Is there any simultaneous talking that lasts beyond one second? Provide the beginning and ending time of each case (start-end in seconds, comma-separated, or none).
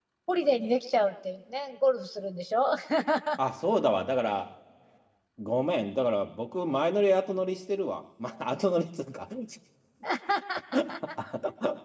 none